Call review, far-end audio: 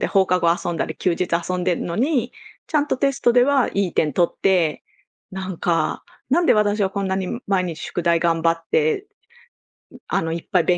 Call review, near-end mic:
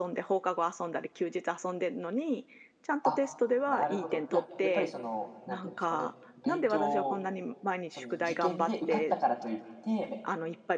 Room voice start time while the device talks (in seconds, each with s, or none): 3.0 s